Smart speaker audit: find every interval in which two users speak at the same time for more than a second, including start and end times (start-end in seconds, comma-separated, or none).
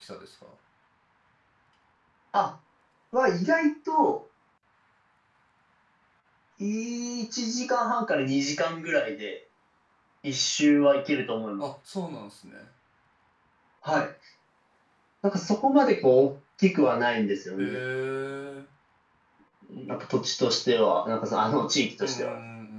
none